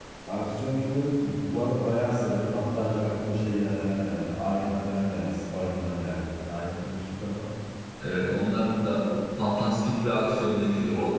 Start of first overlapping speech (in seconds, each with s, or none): none